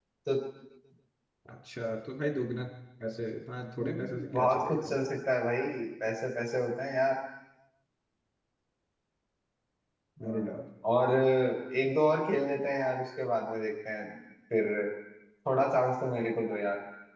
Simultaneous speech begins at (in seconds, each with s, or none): 3.8 s